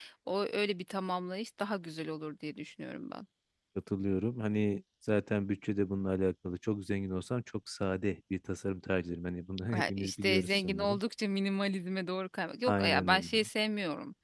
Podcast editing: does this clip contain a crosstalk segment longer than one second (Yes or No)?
Yes